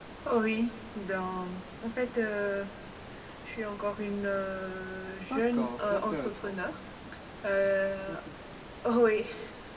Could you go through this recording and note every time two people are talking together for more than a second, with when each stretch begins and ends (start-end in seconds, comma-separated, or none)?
5.3-6.5